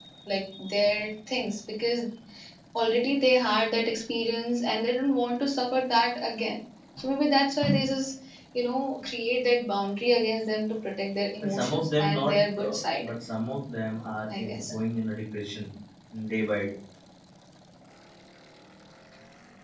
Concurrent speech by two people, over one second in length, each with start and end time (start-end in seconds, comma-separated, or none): 11.4-13.1